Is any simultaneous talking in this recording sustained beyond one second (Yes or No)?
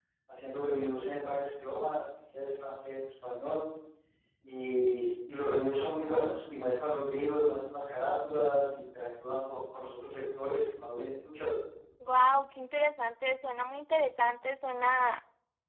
No